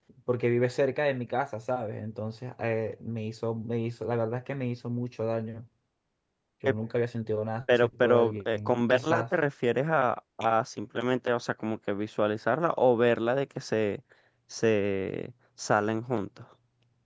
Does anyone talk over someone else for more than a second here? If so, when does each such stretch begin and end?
7.7-9.2

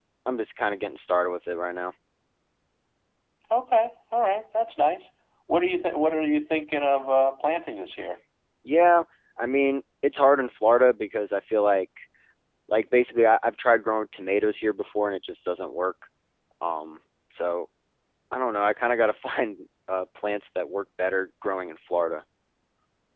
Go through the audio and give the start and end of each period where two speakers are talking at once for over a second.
none

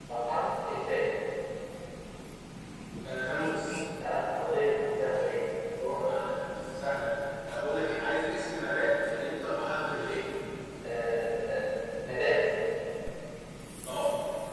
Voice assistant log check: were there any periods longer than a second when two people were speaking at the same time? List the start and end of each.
none

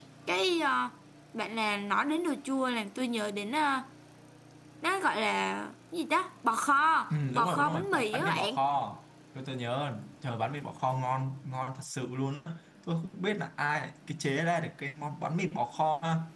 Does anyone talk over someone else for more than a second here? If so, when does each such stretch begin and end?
7.1-8.6

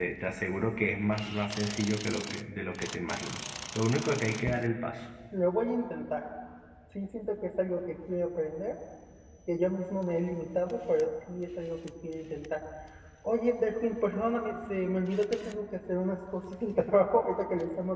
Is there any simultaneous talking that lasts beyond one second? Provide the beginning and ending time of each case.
none

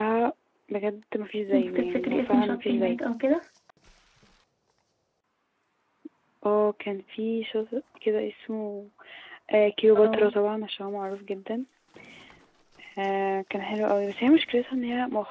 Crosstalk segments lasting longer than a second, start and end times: 1.5-3.0

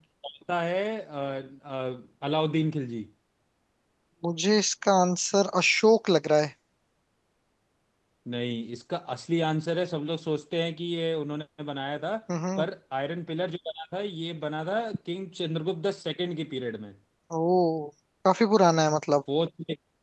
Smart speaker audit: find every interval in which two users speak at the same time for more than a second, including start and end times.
none

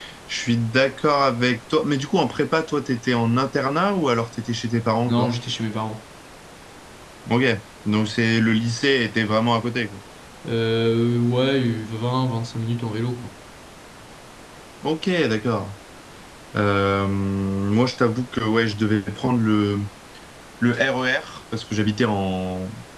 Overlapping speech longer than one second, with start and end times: none

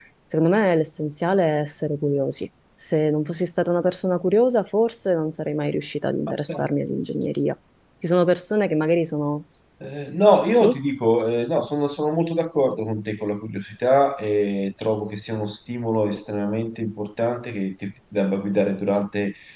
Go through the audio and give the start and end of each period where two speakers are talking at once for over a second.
none

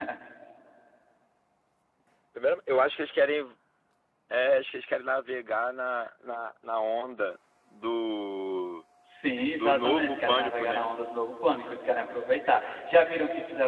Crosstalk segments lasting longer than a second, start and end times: 9.5-10.9

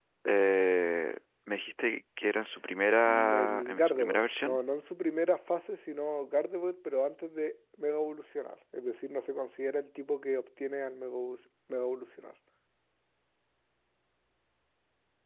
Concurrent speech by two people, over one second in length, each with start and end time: 3.0-4.6

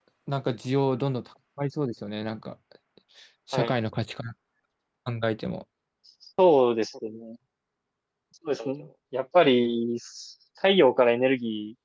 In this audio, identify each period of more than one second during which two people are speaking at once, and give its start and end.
none

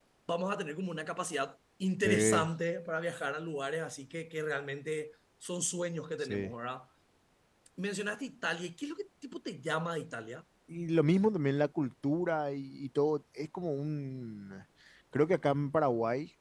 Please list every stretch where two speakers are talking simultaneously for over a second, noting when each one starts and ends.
none

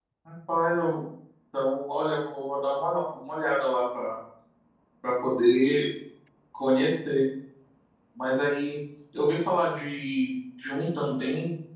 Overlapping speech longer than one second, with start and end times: none

